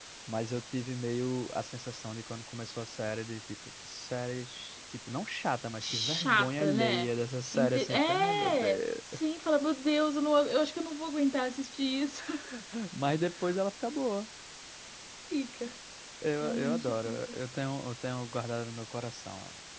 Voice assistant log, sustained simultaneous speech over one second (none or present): present